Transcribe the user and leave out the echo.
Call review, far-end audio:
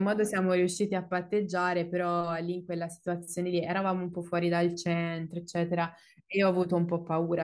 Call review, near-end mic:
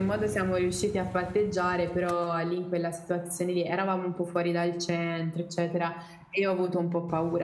none

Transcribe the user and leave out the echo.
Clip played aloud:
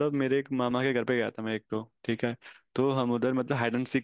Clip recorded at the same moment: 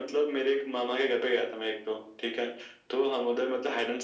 none

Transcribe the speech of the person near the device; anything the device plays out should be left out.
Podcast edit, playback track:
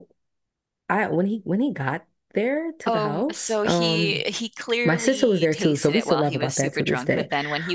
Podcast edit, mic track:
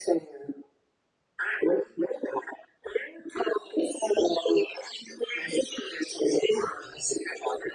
none

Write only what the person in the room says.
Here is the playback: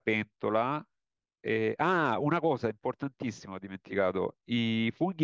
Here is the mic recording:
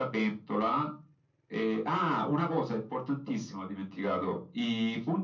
none

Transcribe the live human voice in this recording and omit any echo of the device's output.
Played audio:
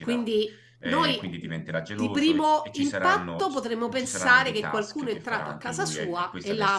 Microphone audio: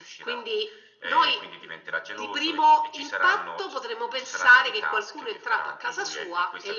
none

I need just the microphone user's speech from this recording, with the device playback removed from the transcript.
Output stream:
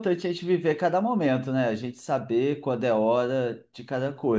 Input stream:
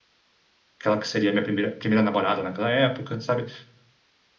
aquela que seria a minha primeira, primeira namorada naquela época, sabe?

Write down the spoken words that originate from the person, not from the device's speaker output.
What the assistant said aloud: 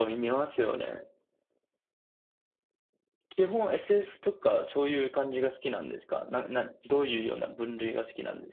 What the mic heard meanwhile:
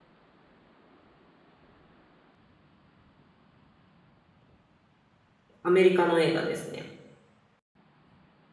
アメリカの映画ですね。

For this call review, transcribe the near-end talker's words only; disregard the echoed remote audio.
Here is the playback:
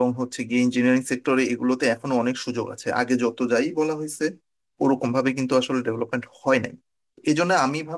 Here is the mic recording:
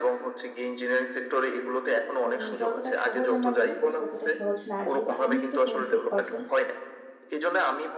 উম, যতটা সহজ আমরা মনে করি ততটা সহজ না যেহেতু আমি একটু হোমসিক পার্সন

